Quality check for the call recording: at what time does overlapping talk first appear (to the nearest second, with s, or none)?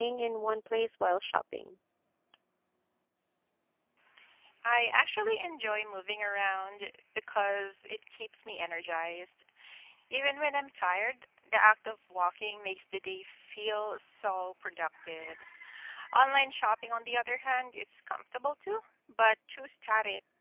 none